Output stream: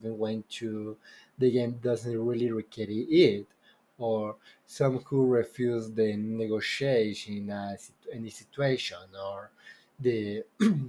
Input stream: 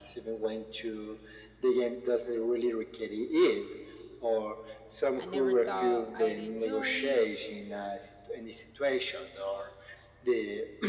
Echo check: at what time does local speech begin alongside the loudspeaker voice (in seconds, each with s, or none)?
5.2 s